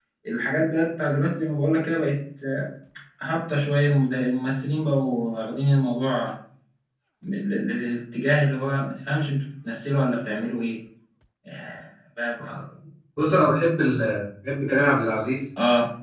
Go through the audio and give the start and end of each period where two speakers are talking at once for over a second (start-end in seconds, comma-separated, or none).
none